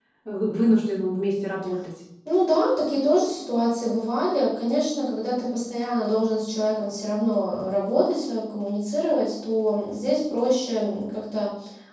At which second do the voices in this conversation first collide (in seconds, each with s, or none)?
none